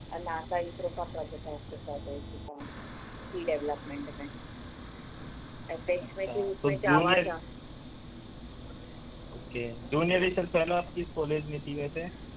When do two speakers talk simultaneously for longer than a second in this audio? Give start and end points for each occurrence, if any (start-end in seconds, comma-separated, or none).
6.0-7.4